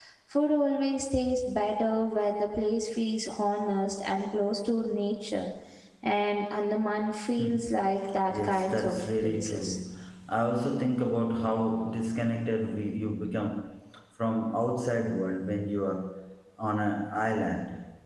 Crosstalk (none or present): present